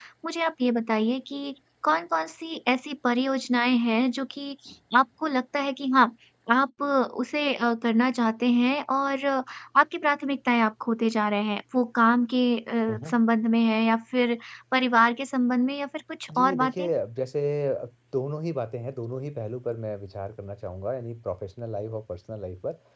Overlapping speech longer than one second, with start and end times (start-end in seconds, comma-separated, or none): none